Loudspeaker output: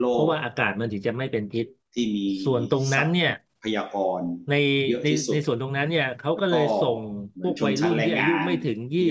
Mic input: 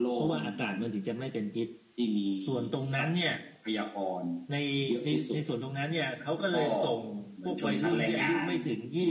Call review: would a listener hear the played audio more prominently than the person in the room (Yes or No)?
Yes